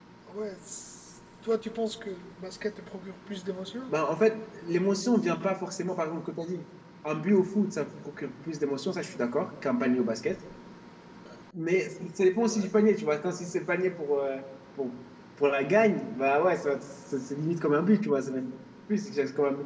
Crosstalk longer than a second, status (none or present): none